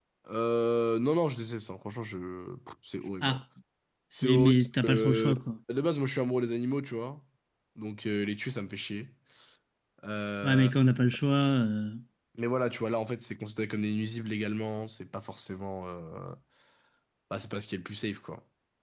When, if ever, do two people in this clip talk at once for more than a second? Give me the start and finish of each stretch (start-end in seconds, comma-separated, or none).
4.1-5.3